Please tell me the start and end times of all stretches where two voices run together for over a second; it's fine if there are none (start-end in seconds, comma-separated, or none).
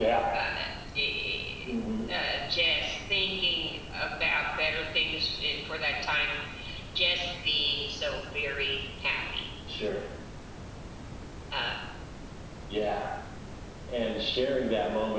none